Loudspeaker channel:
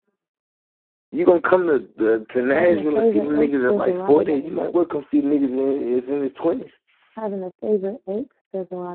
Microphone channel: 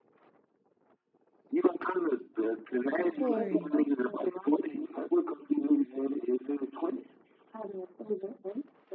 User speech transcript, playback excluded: Corey,

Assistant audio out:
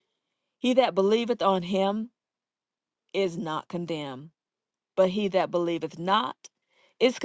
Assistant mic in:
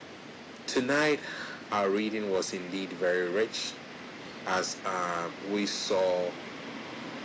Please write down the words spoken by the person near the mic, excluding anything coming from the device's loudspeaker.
Tonight, our reading was indeed very rich, as um, we saw

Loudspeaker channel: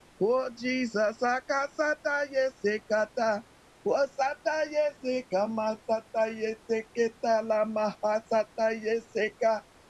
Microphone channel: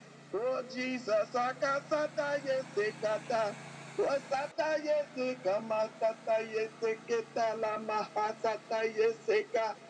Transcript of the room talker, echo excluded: none

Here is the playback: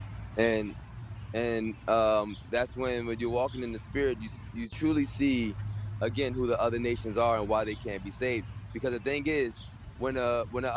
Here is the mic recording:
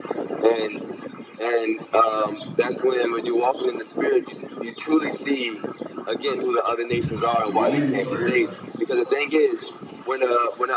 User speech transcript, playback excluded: Romans or Israelites.

